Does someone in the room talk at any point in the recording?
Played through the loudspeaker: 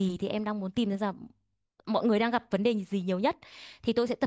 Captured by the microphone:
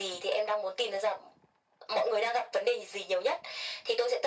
No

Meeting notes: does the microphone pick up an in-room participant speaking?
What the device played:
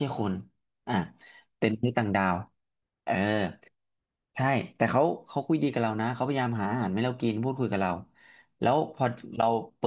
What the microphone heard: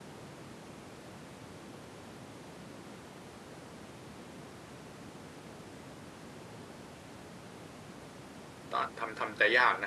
Yes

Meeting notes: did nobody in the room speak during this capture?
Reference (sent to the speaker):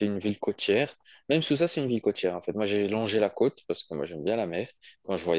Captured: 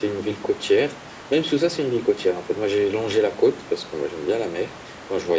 Yes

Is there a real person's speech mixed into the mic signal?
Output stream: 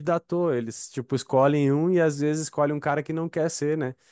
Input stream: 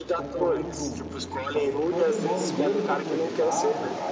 Yes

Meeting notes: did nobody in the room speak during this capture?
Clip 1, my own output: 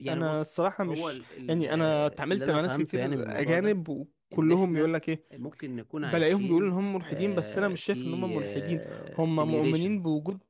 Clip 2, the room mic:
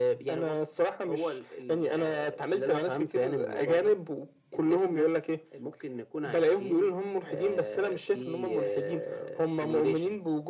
Yes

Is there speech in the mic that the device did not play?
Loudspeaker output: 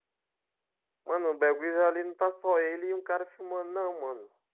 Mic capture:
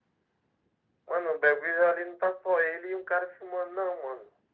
No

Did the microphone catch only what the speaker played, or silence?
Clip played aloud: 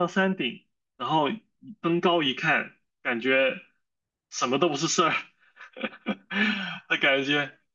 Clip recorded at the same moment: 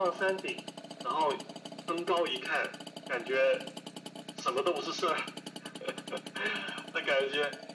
Yes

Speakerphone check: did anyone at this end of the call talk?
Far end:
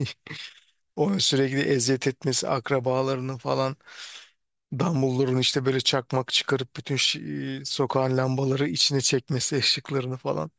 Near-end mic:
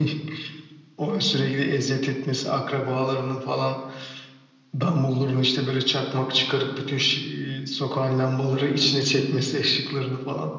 No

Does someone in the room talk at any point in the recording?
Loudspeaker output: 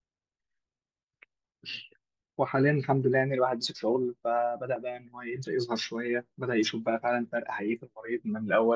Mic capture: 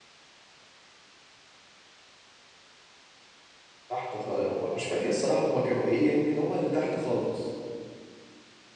Yes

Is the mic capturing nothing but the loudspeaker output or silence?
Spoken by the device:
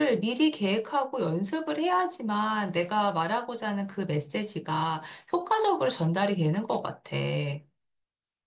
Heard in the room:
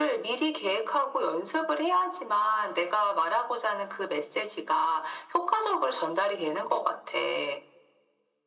Yes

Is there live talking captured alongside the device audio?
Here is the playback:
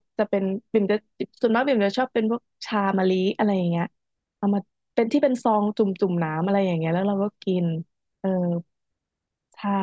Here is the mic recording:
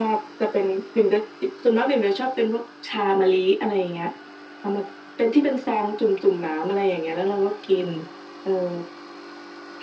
No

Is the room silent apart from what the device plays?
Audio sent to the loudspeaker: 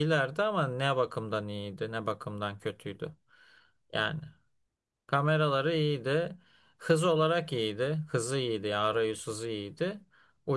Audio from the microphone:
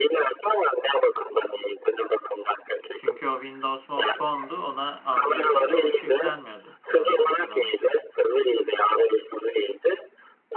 No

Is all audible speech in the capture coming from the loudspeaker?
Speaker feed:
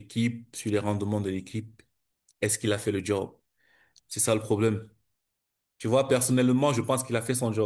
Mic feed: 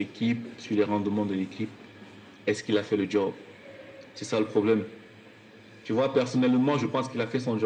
Yes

